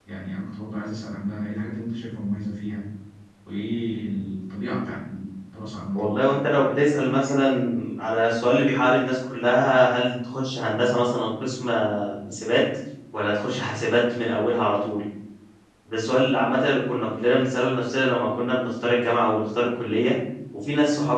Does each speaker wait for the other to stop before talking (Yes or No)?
Yes